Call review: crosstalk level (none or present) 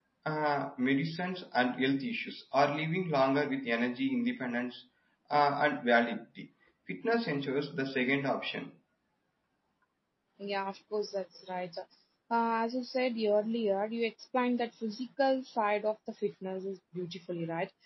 none